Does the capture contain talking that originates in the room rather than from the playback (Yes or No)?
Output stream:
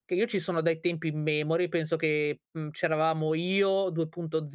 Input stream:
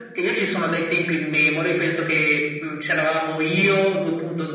No